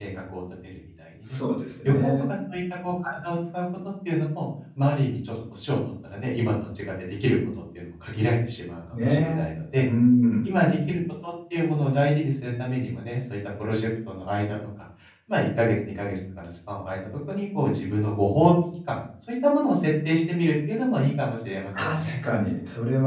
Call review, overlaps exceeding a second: none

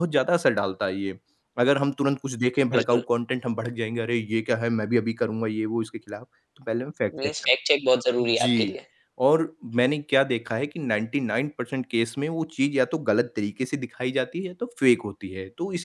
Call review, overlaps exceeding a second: none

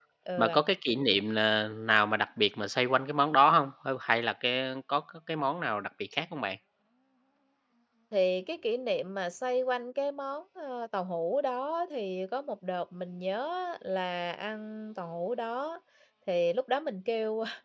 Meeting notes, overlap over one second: none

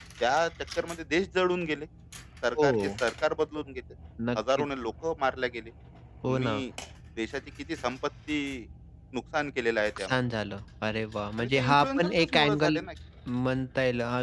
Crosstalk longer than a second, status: present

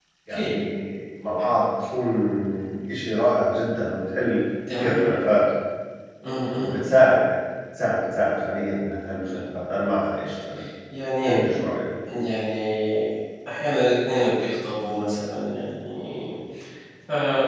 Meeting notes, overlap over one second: none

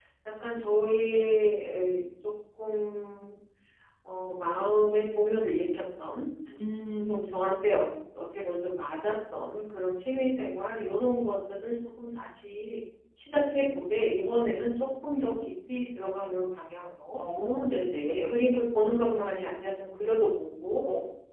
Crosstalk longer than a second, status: none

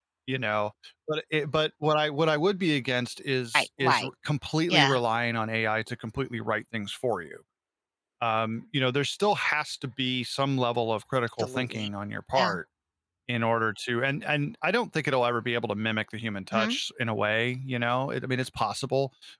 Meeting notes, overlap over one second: none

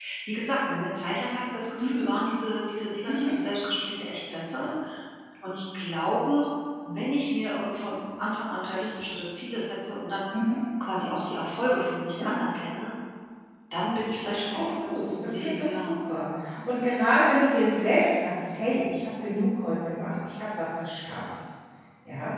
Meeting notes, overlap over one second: present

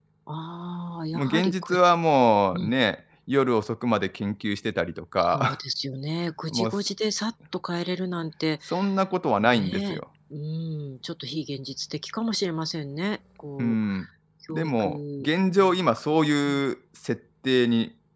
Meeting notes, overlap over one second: present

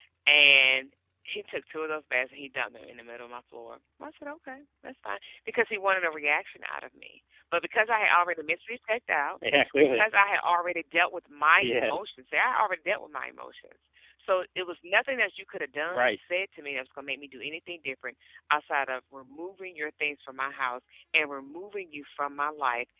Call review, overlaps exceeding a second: none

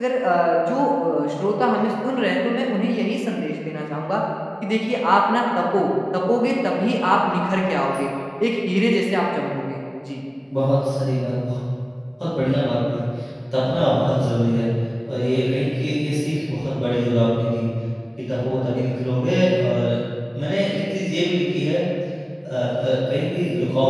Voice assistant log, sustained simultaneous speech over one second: none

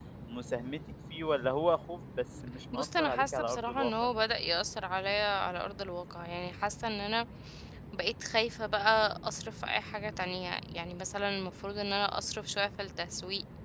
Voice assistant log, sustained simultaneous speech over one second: present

